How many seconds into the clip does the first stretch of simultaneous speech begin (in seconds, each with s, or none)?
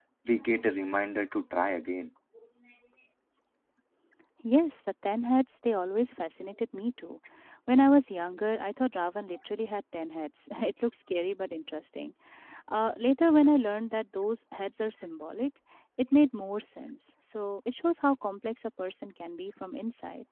none